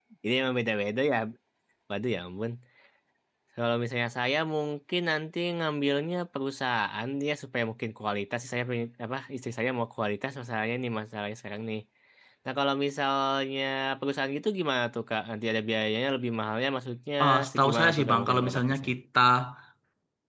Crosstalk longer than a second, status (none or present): present